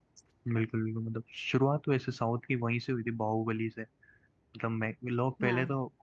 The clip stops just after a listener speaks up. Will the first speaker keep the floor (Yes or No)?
Yes